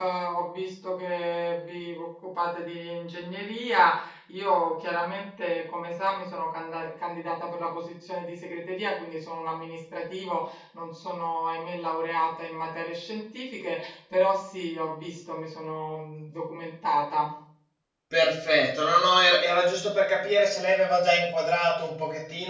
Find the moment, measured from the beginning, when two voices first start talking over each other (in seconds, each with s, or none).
none